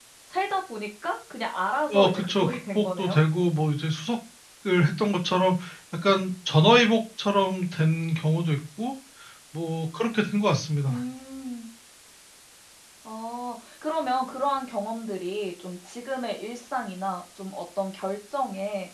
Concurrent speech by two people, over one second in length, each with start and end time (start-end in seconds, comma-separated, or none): 1.9-3.2